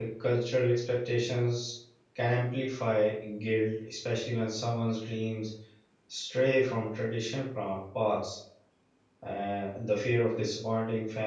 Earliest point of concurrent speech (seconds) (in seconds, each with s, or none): none